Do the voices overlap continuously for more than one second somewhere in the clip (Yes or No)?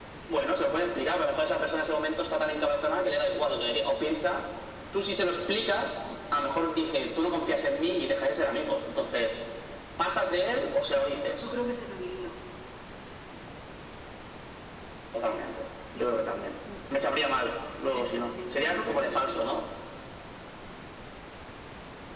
Yes